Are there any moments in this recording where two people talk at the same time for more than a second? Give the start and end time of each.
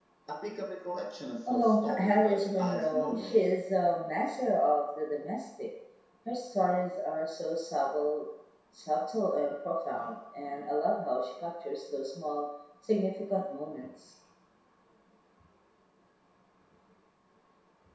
1.5-3.3

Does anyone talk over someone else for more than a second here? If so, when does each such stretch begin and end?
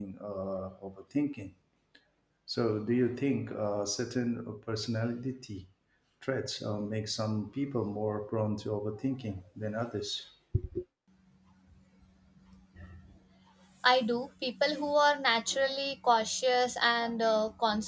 none

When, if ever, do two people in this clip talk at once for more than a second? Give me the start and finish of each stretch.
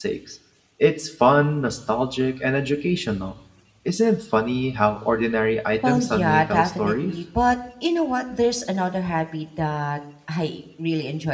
5.8-7.2

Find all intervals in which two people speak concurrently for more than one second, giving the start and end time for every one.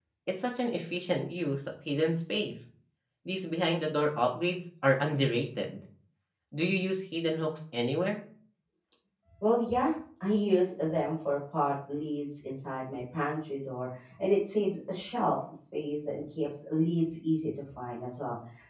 none

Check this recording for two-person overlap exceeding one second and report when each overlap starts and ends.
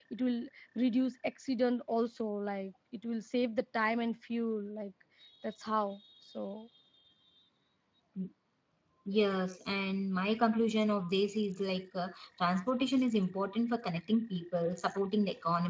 none

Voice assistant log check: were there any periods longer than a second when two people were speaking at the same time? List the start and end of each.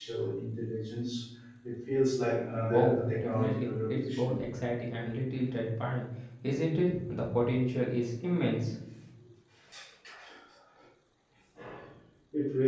2.7-4.5

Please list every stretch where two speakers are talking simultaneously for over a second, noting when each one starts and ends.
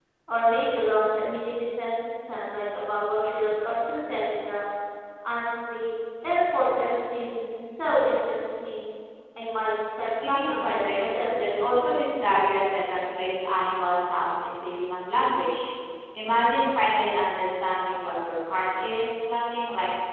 10.0-11.8

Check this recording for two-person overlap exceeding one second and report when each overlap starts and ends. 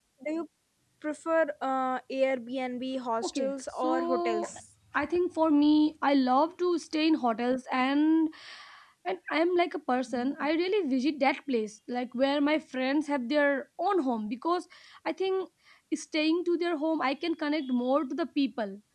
3.2-4.5

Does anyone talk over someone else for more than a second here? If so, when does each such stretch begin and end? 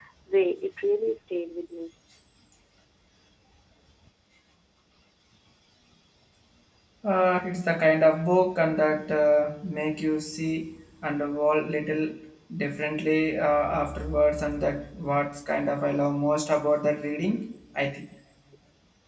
none

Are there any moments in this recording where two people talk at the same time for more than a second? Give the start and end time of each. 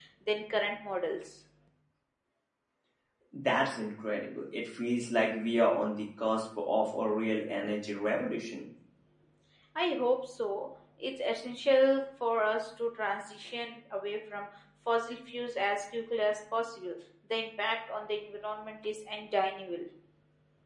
none

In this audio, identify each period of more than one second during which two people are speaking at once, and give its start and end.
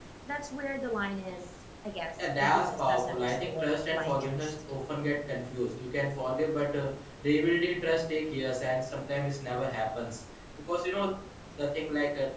2.4-4.5

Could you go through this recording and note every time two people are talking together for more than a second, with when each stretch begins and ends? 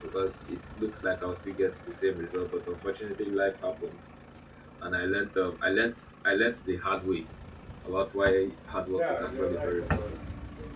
8.9-10.1

